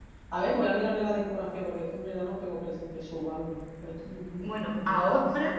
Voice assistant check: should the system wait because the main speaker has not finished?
No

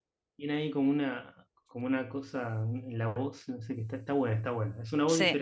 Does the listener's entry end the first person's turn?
Yes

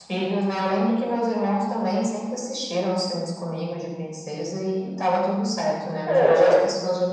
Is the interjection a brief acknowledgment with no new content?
Yes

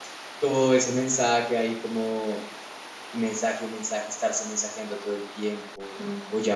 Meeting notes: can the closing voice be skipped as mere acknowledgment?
Yes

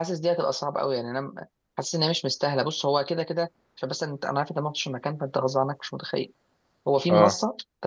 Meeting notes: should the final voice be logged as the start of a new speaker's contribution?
No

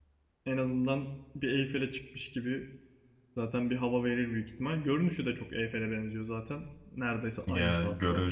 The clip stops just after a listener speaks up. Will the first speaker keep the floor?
No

